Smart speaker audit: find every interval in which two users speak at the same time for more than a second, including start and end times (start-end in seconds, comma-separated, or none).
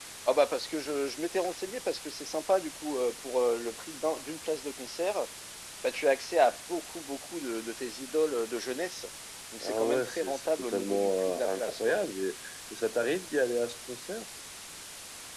9.6-11.8